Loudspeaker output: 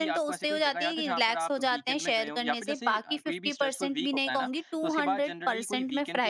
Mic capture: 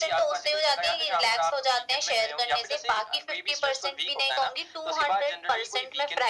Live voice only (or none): none